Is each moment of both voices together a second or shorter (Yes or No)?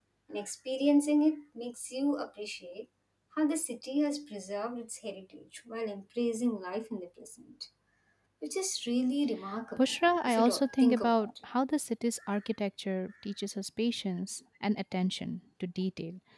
No